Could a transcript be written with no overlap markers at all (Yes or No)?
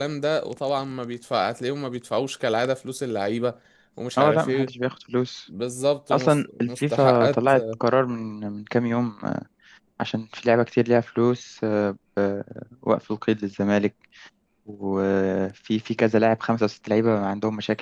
No